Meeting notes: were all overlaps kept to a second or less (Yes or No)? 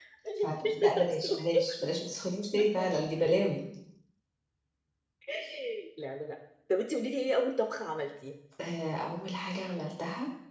No